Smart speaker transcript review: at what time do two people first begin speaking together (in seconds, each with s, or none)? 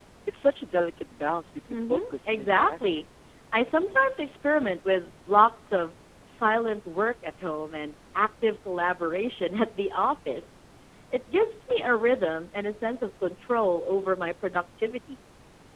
1.7 s